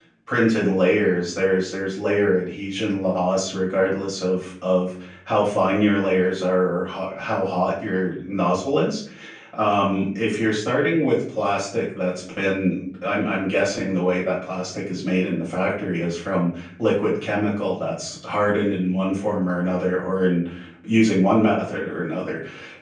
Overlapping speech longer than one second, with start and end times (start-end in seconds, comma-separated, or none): none